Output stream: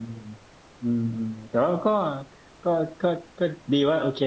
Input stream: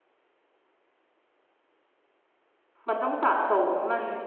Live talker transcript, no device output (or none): มันต้องสะสมมัน